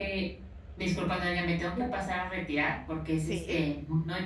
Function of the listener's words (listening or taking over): listening